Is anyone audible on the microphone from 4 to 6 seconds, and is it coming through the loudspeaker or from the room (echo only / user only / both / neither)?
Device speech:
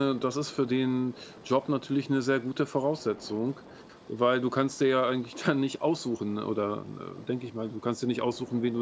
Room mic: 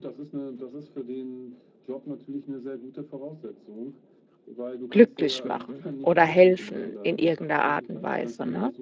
both